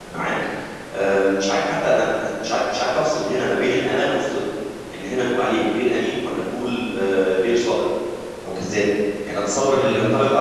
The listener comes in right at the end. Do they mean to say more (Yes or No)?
No